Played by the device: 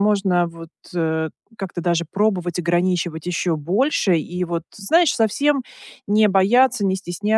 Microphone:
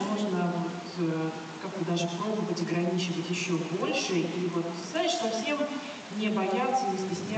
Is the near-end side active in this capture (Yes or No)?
No